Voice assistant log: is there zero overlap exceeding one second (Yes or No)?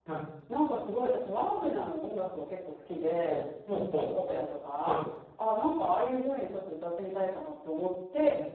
Yes